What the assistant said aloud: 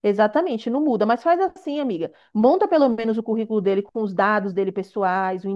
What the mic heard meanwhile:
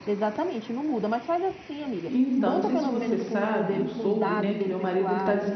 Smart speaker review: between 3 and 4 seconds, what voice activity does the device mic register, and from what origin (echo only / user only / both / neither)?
both